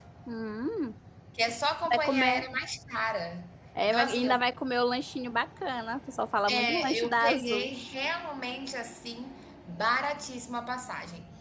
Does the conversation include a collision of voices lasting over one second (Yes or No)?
Yes